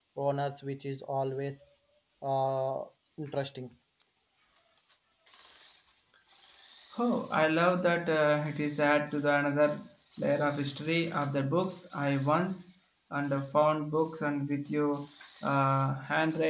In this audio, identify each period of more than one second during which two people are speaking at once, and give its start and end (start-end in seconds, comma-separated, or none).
none